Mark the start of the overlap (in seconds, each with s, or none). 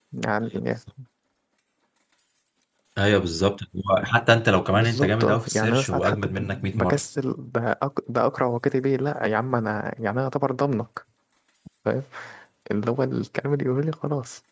4.7 s